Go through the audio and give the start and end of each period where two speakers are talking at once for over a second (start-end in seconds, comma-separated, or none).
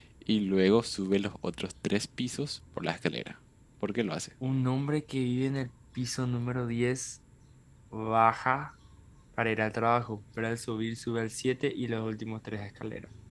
none